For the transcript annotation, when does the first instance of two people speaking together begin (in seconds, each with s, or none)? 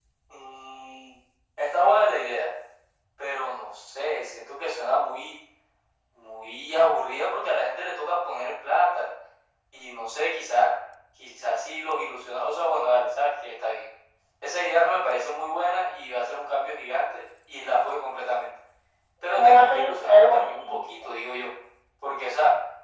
19.3 s